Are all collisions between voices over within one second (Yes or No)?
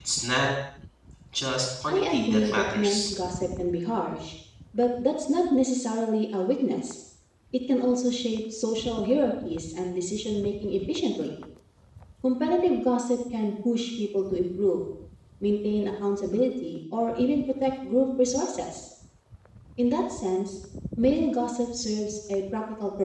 No